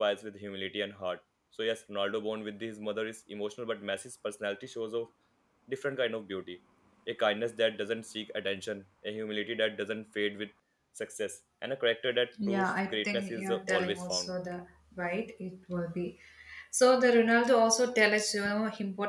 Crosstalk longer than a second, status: present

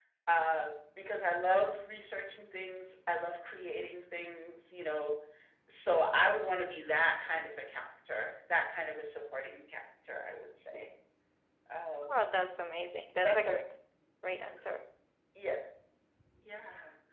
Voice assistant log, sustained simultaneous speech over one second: none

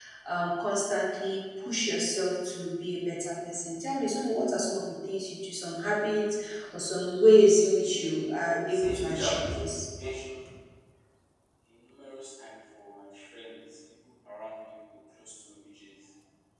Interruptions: present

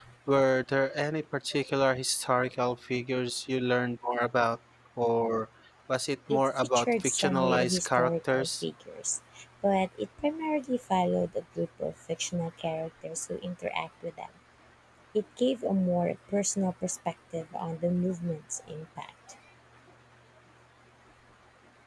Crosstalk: present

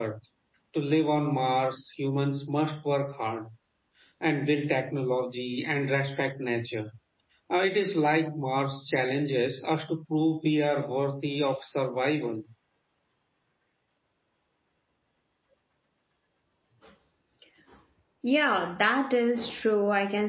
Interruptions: none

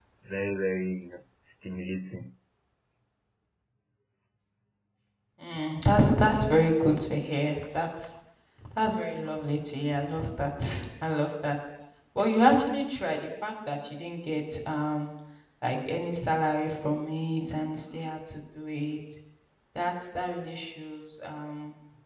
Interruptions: none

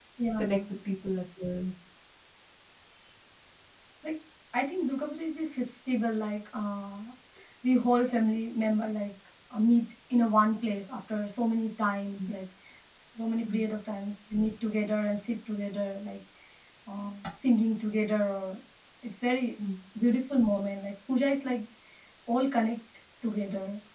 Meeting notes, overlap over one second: none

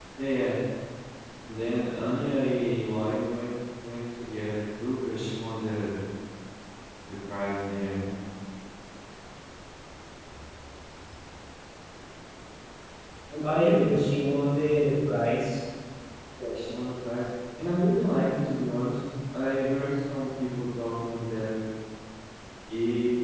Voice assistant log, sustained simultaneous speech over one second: none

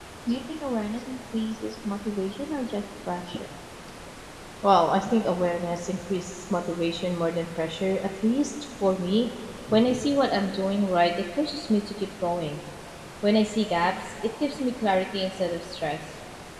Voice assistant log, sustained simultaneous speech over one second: none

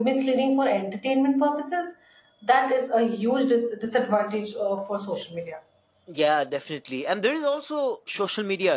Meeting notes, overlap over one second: none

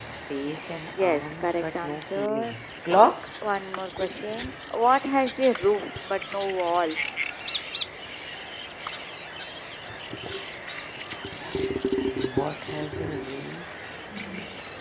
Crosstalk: present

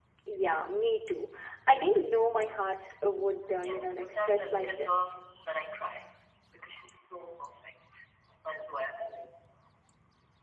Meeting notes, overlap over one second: present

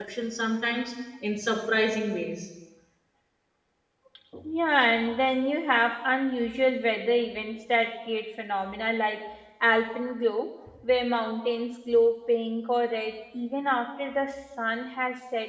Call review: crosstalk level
none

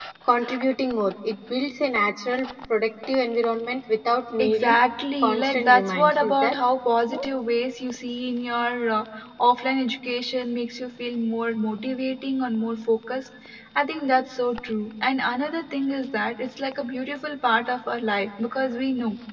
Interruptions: present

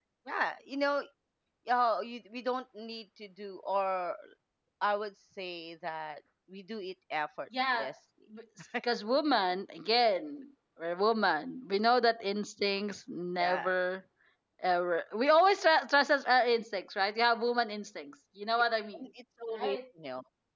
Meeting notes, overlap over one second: none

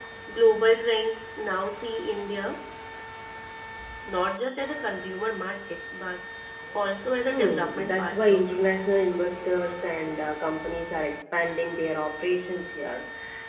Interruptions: present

